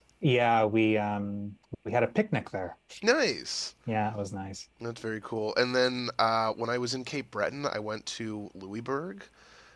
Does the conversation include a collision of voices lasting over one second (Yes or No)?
No